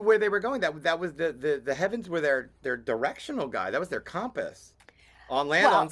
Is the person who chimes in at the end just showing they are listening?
No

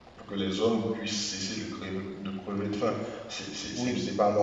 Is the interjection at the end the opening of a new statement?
No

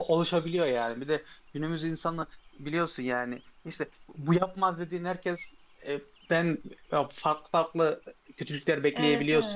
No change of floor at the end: No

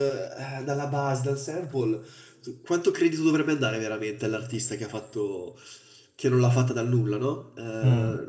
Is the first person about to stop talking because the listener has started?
No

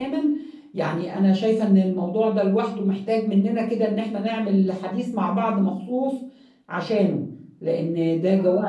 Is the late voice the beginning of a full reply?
Yes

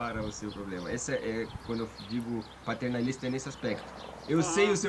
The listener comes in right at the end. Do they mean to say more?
No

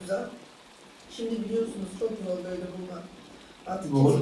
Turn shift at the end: No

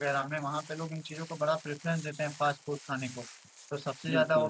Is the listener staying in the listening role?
Yes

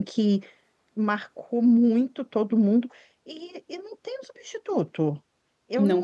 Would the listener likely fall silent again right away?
Yes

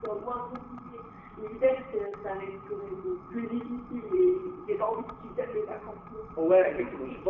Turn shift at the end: Yes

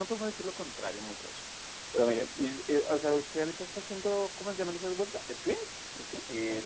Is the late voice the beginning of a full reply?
Yes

